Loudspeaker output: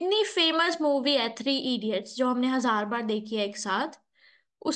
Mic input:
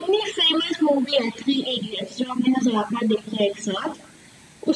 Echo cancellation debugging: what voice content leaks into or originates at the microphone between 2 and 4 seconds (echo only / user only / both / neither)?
echo only